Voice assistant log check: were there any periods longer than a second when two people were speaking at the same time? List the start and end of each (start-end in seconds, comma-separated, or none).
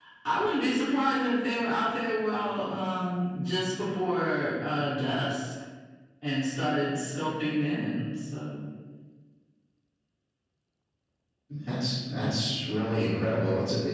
none